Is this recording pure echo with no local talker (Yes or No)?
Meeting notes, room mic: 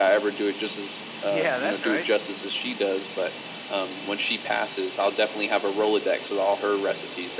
No